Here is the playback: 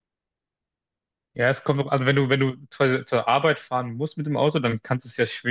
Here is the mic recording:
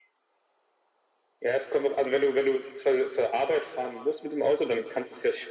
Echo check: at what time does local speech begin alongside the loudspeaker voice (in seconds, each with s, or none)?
none